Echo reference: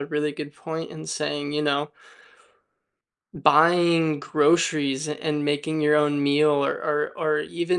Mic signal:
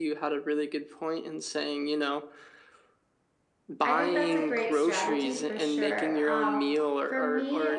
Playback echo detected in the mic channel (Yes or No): Yes